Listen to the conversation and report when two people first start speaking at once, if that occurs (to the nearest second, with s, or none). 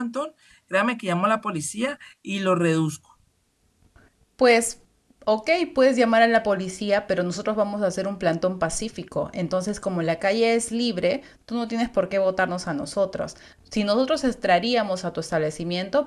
none